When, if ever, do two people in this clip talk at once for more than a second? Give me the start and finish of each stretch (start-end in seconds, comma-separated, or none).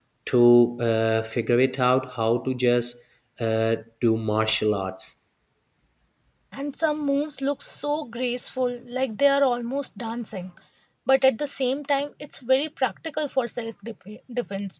none